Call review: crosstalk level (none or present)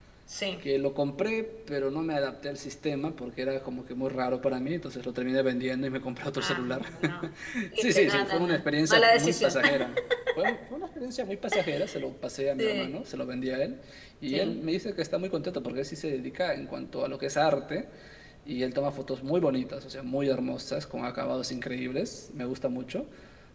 present